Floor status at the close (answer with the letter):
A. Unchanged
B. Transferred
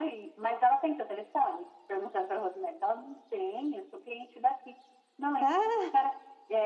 A